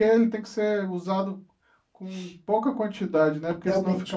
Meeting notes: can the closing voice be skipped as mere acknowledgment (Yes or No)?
No